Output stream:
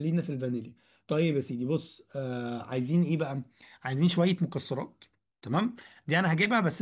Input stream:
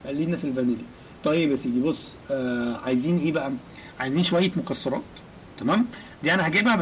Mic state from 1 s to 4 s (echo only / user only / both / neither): echo only